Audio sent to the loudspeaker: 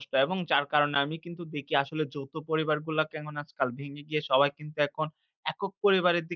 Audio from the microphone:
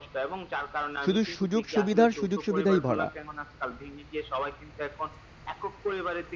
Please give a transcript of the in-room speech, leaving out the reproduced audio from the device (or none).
শুধু সুযোগ-সুবিধার, সুযোগ-সুবিধাই ভরা।